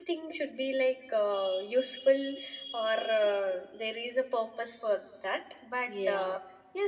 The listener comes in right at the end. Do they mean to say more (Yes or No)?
No